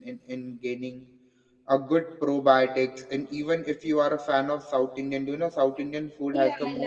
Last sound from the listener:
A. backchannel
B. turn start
B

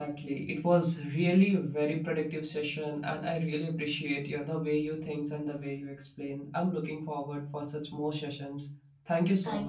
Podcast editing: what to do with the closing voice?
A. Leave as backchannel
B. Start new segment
B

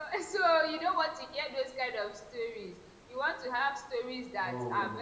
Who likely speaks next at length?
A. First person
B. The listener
A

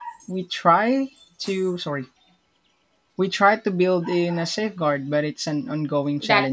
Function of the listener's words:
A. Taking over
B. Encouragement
A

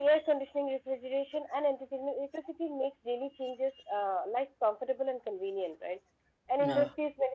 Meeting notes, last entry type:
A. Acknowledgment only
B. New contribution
A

